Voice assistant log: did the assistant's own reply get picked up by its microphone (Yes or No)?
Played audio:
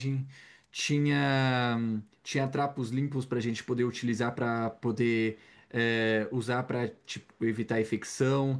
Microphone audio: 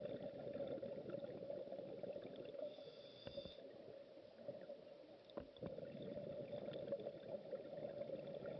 No